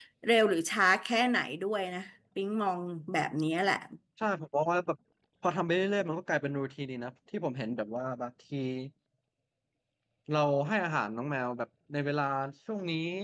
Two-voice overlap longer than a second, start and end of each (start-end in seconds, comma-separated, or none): none